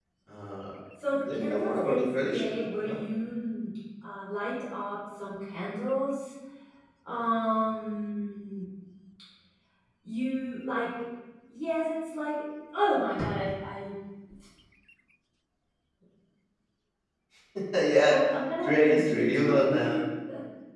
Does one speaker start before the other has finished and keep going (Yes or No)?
Yes